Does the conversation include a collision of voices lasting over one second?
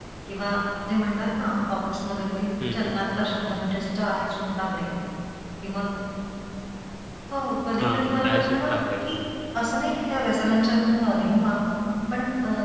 Yes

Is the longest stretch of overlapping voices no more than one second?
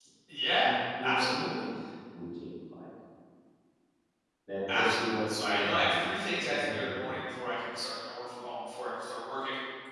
No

